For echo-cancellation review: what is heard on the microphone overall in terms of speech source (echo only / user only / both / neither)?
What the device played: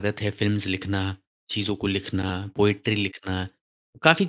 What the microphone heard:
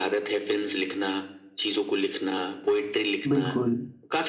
both